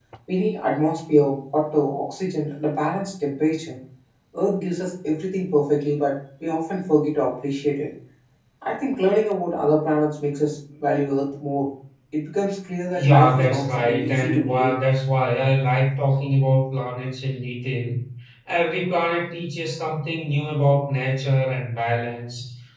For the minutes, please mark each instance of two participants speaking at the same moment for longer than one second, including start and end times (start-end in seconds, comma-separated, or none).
12.9-14.8